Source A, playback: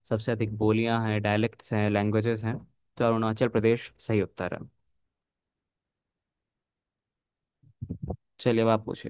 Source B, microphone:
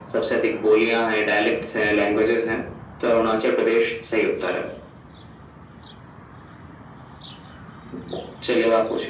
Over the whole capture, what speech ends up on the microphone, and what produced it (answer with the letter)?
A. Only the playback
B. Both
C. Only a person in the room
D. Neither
A